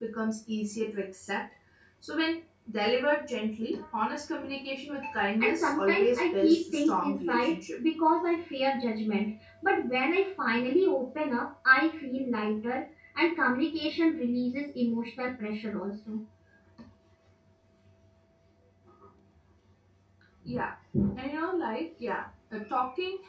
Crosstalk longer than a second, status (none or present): present